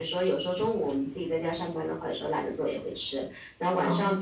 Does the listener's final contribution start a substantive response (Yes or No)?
No